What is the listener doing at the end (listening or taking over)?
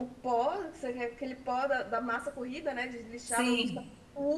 listening